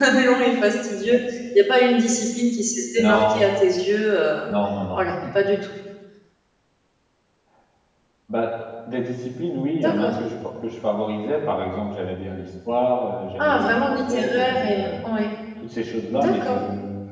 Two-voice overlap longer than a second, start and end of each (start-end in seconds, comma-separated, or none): 13.4-15.1